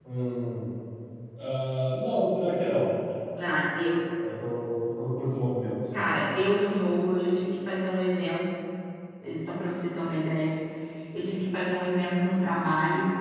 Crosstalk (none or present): none